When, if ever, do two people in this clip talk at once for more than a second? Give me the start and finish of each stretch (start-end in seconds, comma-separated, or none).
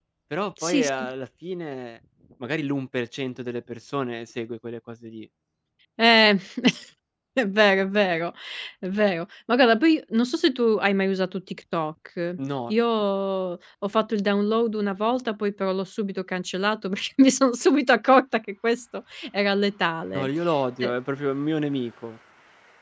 none